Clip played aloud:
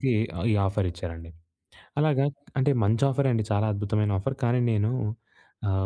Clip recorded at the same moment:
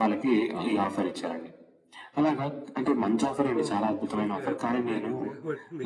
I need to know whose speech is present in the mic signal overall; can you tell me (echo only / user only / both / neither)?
both